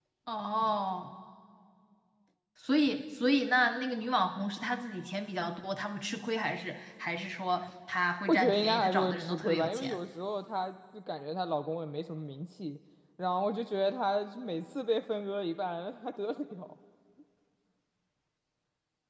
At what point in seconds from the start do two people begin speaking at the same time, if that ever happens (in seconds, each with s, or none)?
8.3 s